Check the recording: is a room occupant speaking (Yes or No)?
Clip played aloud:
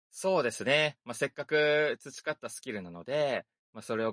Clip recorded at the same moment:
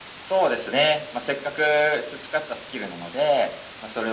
No